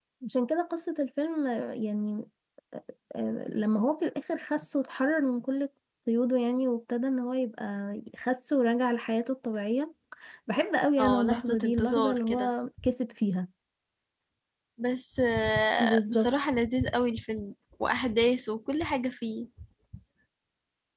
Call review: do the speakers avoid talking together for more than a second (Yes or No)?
No